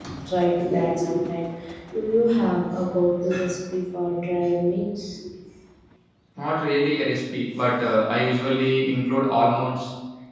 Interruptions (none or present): none